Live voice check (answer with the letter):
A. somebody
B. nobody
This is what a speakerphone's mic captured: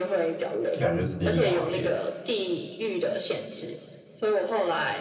A